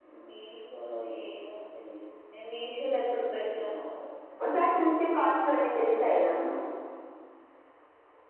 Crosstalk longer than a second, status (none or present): none